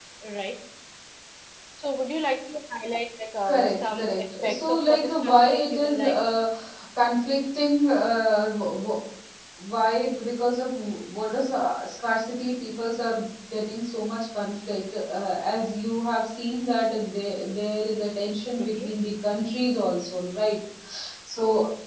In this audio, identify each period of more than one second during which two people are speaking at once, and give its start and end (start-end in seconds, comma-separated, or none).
3.5-6.2